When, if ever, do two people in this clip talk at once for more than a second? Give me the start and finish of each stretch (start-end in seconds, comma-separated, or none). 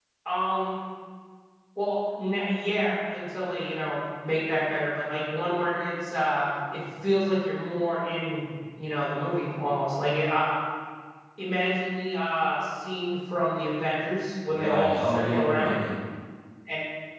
14.5-15.8